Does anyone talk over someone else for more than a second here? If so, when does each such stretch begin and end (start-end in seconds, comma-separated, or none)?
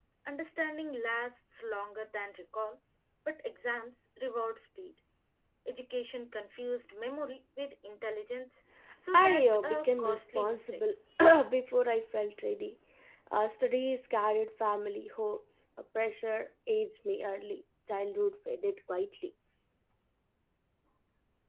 9.1-10.8